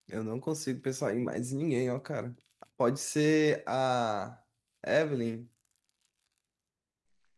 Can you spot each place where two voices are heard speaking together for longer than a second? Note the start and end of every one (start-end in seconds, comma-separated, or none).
none